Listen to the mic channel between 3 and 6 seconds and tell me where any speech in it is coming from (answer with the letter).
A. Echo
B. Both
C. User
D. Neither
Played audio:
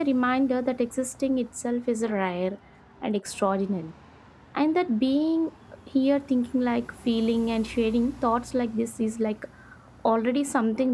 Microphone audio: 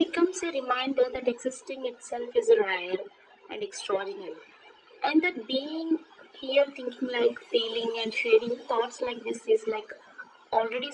A